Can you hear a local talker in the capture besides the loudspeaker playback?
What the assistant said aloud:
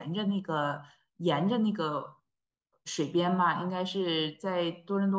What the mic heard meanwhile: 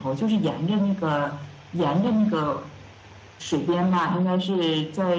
No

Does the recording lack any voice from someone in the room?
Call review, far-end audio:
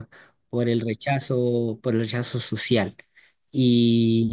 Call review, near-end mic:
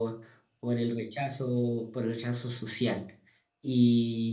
Yes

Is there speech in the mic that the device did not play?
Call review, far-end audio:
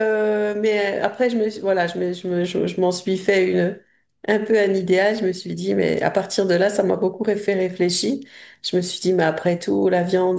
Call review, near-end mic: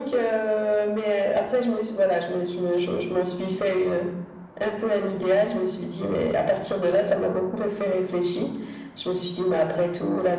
No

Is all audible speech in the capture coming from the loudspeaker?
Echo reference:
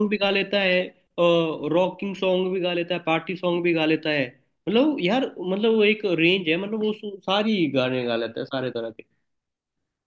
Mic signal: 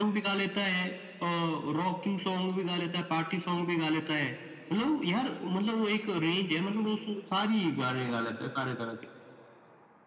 Yes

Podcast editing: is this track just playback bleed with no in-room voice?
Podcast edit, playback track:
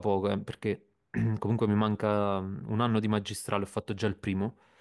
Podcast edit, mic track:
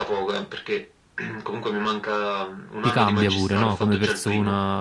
No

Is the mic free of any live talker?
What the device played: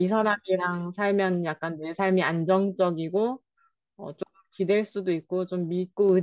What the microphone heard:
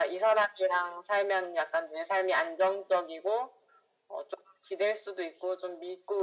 Yes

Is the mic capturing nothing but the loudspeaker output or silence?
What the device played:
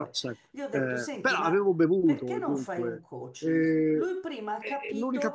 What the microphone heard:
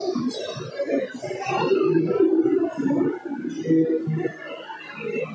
Yes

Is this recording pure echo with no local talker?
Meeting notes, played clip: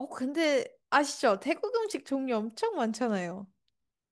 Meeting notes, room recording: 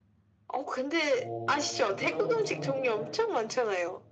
No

